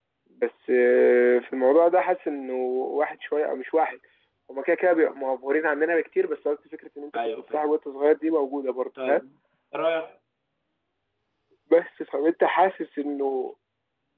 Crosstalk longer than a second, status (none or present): none